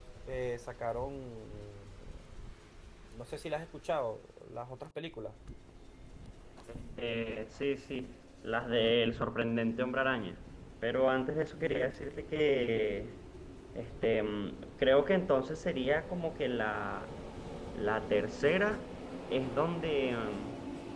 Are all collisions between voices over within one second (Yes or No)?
Yes